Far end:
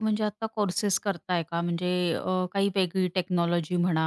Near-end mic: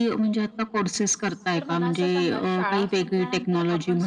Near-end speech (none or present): present